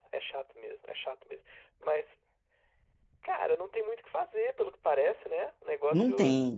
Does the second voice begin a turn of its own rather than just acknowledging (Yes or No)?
No